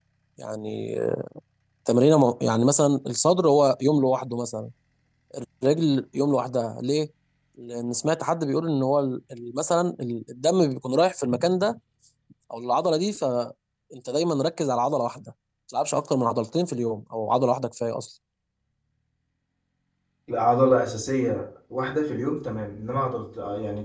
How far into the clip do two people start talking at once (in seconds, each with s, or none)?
none